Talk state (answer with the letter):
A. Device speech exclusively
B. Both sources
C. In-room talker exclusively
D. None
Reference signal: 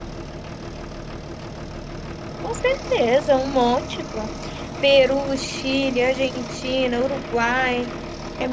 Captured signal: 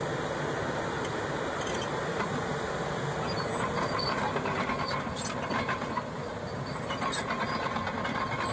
D